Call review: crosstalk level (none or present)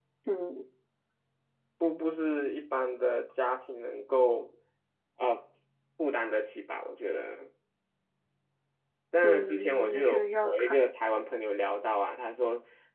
present